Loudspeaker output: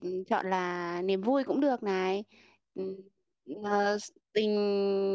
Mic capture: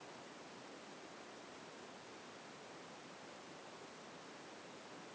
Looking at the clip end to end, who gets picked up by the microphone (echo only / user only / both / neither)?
neither